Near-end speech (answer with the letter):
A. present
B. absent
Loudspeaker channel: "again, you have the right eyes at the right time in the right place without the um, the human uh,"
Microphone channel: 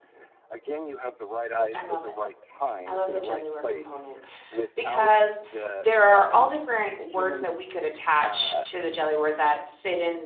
A